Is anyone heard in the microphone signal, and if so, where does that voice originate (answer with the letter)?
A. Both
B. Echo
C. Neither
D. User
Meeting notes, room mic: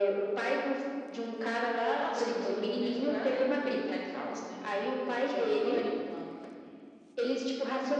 B